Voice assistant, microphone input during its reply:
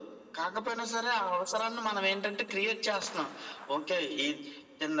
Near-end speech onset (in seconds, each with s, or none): none